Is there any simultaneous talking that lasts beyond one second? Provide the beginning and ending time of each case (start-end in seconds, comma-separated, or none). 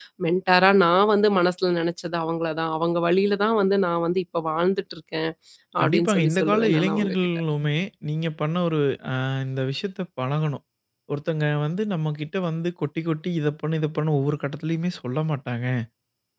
5.8-7.2